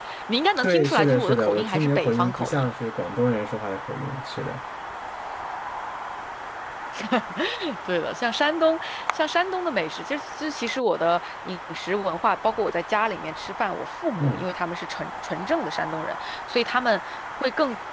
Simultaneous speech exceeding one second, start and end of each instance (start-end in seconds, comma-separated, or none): 0.6-2.7